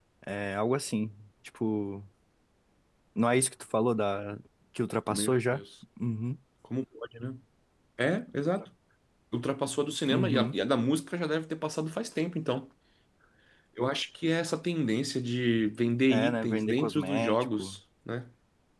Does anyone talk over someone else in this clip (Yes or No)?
Yes